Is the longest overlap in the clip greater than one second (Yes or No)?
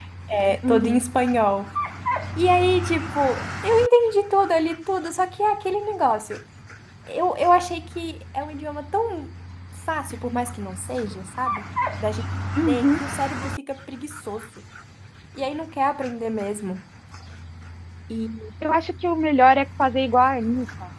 No